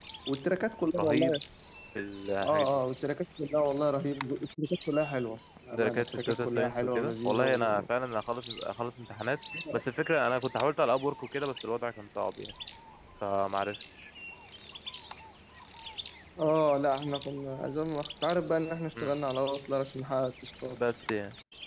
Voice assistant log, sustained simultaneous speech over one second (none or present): present